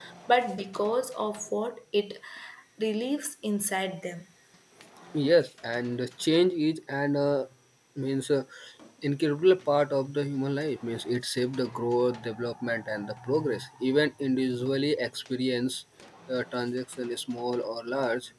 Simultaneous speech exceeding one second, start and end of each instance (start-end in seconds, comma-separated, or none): none